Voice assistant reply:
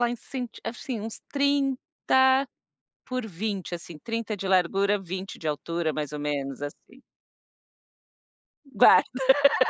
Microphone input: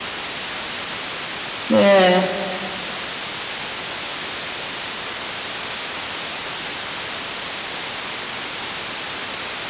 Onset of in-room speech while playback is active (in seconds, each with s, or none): 1.7 s